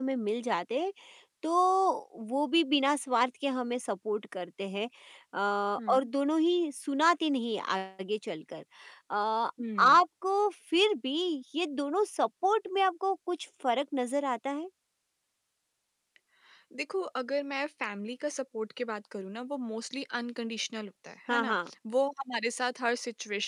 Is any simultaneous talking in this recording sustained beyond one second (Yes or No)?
No